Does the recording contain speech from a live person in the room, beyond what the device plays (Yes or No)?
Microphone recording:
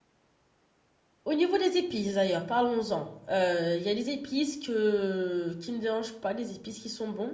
Yes